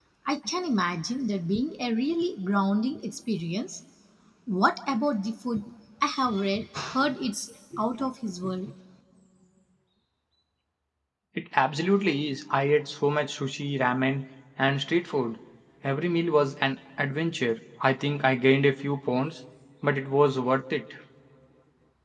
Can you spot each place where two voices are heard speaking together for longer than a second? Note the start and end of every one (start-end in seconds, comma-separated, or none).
none